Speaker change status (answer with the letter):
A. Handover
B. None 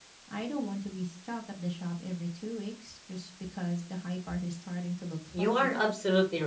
A